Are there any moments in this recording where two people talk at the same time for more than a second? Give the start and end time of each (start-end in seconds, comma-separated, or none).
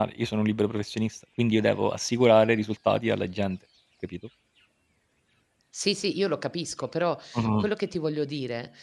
none